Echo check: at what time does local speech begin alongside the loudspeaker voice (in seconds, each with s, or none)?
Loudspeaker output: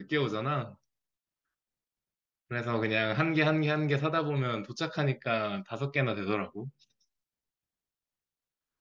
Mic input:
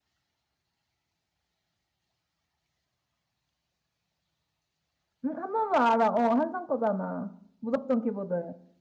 5.2 s